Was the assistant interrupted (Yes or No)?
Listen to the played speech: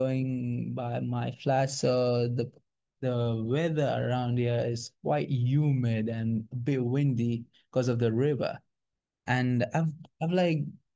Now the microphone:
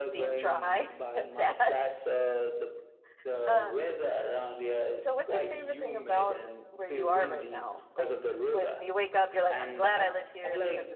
Yes